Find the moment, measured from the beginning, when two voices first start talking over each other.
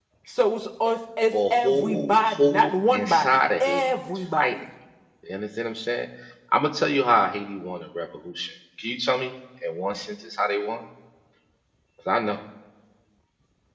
1.3 s

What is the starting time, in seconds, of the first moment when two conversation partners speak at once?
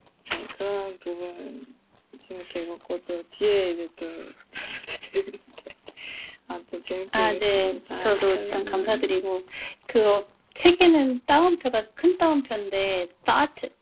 7.1 s

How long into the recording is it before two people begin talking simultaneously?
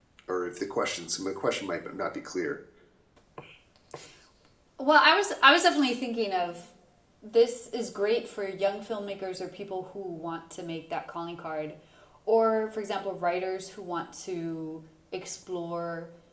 none

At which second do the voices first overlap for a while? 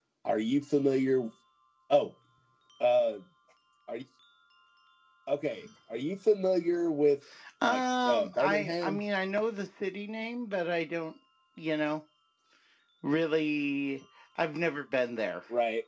7.6 s

